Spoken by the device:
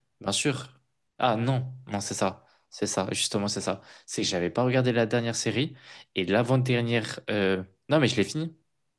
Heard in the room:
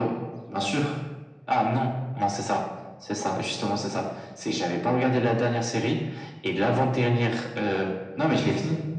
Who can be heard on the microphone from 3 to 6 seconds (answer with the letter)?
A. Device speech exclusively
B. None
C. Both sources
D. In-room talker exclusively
A